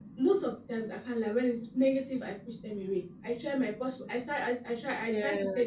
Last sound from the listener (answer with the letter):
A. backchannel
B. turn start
A